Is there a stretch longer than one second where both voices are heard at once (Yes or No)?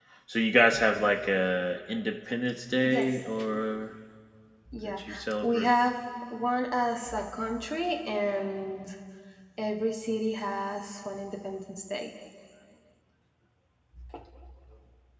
No